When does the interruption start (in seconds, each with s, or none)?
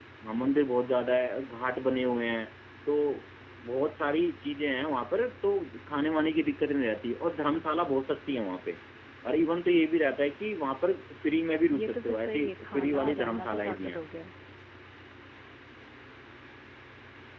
11.7 s